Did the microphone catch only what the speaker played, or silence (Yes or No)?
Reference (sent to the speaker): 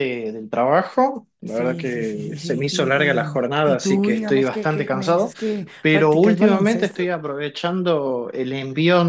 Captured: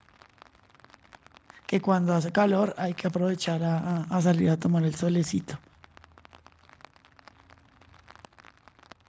No